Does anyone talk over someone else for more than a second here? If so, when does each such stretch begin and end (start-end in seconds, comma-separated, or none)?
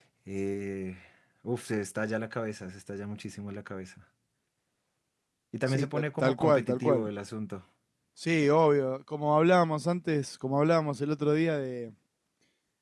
5.7-7.0